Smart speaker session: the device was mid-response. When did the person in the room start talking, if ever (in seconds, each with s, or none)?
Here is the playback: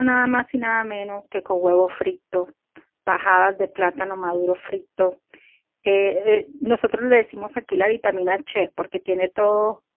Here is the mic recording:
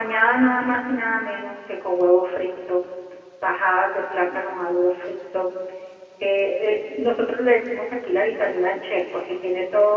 none